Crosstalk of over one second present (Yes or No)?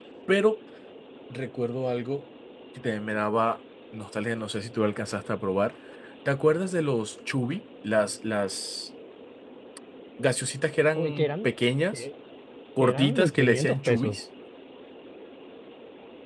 Yes